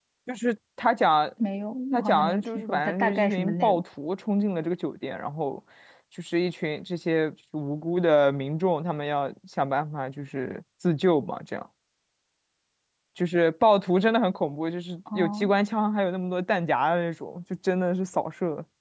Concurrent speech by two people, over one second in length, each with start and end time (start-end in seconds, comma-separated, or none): 1.9-3.8